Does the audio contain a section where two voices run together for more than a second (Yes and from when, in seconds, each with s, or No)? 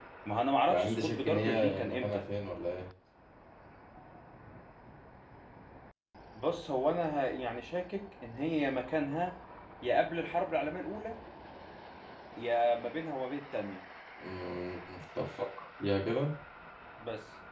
Yes, from 0.7 s